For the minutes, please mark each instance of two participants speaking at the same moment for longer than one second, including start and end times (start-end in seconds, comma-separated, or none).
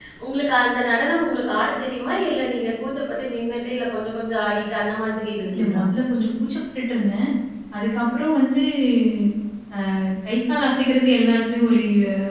none